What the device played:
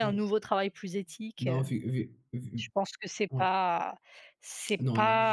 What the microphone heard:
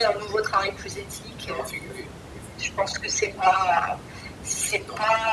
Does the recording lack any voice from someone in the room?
Yes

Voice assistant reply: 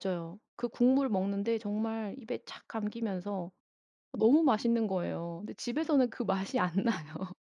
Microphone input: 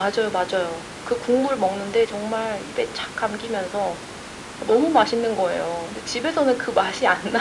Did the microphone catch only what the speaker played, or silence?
Yes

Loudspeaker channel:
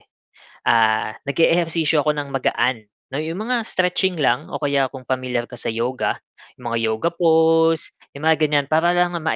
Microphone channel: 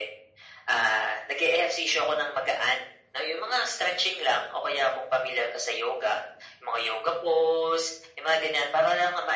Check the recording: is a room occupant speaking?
No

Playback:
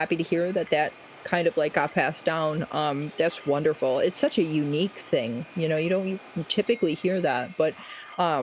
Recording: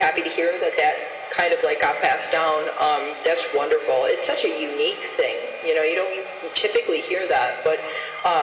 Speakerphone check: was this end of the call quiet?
Yes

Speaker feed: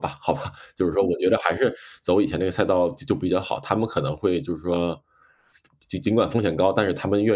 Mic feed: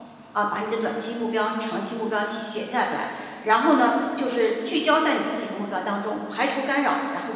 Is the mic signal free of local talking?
No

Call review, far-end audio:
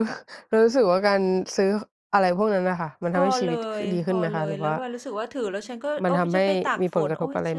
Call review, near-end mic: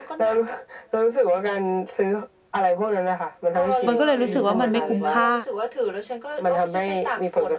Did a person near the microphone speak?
Yes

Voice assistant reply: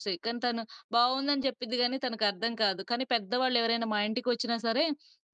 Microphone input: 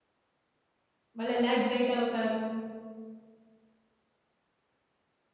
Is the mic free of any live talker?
No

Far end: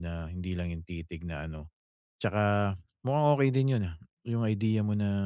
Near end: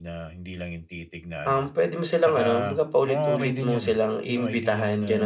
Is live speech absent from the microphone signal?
No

